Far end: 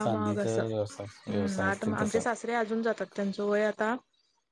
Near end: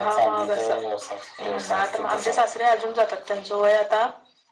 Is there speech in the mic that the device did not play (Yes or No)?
No